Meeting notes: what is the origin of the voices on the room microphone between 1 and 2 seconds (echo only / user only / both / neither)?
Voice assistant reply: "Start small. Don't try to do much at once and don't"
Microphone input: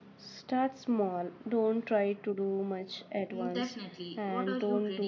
echo only